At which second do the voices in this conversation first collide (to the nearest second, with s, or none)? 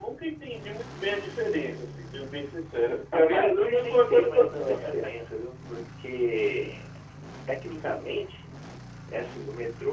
3 s